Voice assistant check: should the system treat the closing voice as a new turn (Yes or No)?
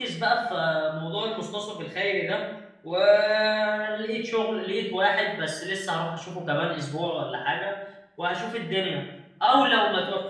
No